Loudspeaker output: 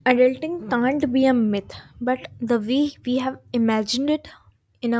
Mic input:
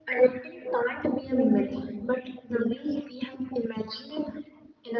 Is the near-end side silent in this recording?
Yes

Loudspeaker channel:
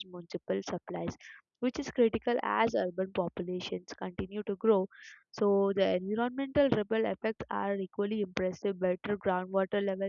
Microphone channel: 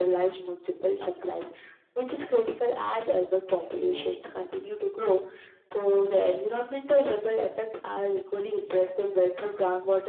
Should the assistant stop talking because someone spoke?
Yes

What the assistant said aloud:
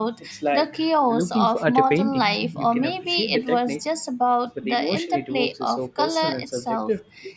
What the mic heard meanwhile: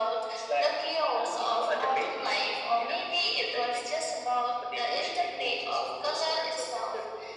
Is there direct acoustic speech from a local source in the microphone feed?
No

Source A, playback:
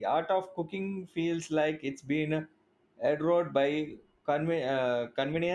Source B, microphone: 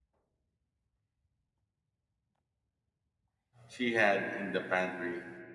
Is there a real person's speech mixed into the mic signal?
Yes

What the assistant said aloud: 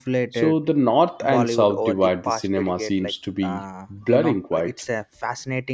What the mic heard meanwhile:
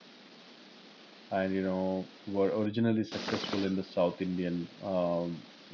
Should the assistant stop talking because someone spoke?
Yes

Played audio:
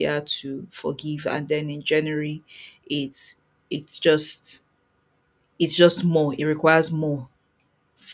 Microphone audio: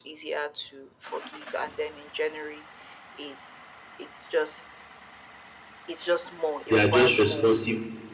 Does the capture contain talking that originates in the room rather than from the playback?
Yes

